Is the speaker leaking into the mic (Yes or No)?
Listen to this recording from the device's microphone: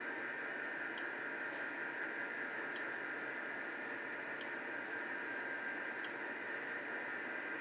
No